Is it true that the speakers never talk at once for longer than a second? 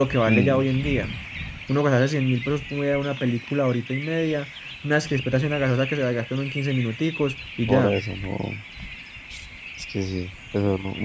Yes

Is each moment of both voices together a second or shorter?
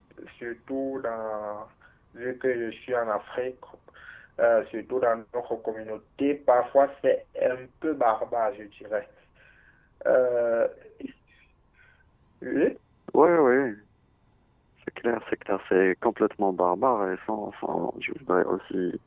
Yes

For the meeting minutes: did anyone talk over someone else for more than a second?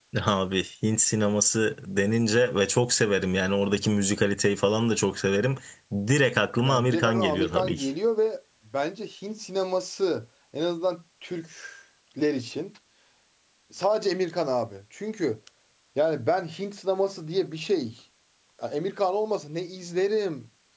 Yes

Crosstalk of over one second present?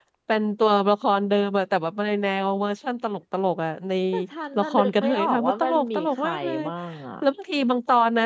Yes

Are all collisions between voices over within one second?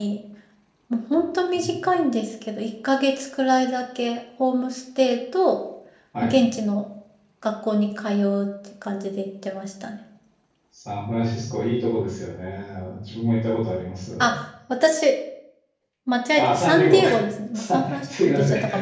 No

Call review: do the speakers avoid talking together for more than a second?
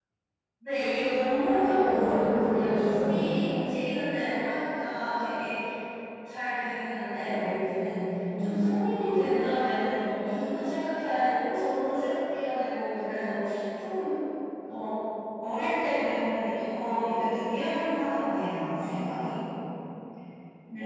No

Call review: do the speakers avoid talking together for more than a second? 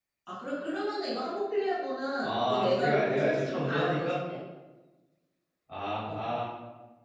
No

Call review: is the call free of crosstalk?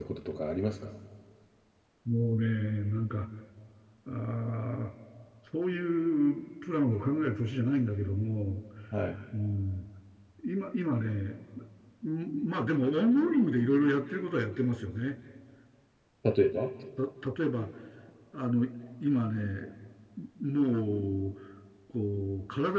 Yes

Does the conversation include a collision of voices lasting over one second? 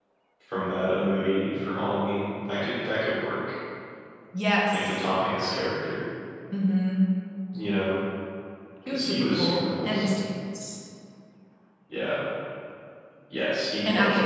Yes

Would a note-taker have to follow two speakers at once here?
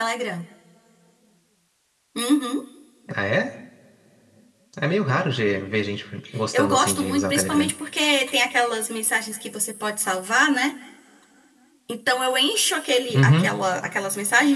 Yes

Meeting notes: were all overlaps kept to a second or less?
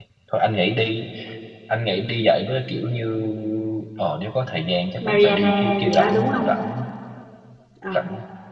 No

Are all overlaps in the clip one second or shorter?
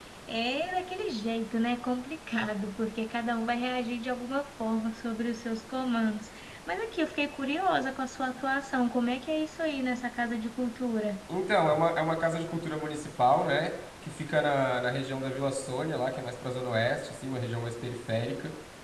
Yes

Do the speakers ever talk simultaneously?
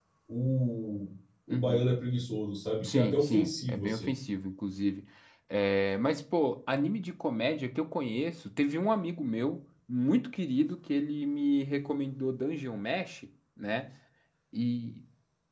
Yes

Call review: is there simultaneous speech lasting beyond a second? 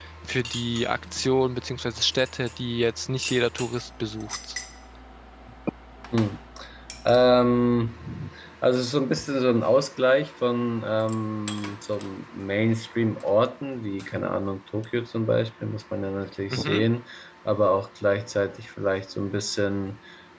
No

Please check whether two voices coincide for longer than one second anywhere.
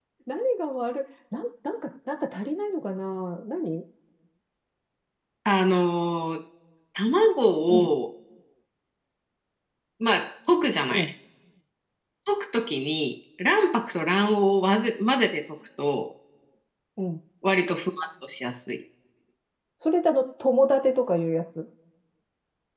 No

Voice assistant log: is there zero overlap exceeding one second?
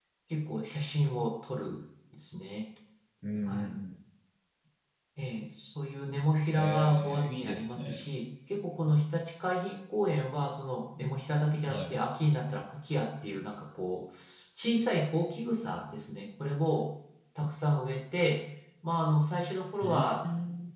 No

